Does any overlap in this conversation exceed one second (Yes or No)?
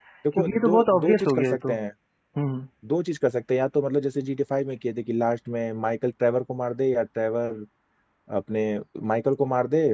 Yes